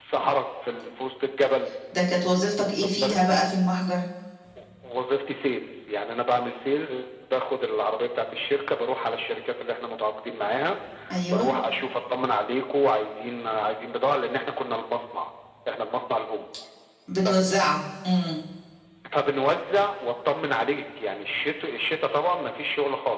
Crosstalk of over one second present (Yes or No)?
No